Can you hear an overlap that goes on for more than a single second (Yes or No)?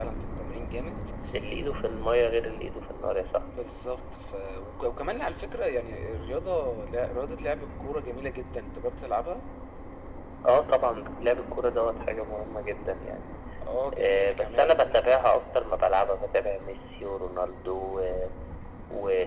Yes